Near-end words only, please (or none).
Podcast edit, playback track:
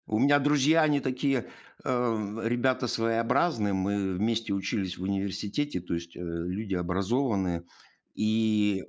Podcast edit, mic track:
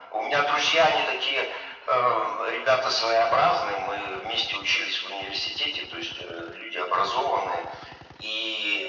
none